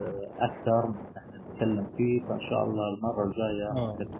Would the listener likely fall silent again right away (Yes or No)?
No